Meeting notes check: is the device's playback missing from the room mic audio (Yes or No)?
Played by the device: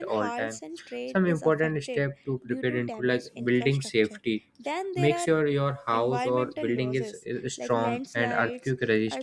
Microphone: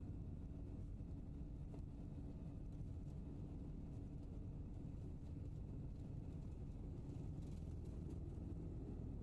Yes